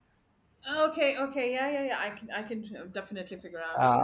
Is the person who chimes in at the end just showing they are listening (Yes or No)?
No